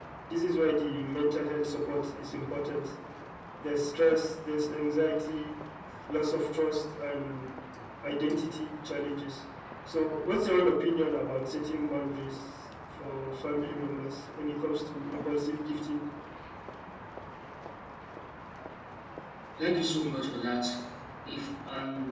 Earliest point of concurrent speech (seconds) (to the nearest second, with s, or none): none